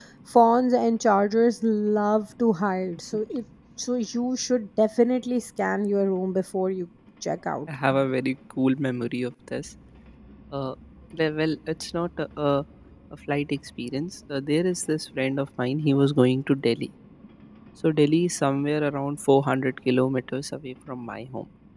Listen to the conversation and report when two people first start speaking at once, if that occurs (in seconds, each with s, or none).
none